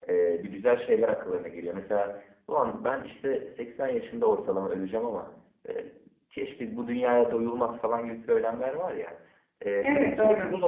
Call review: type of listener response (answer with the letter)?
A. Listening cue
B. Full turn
A